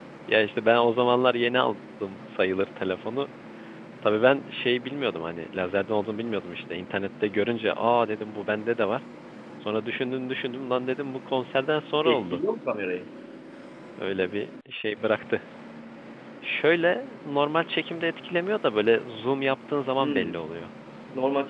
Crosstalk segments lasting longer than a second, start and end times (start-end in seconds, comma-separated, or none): none